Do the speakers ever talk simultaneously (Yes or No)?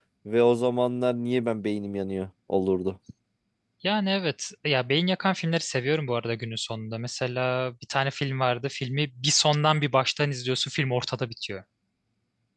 No